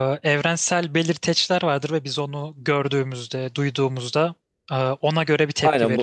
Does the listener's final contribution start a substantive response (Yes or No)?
Yes